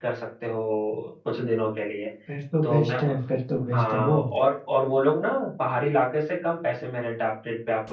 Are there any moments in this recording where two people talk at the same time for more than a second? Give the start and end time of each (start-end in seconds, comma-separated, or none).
none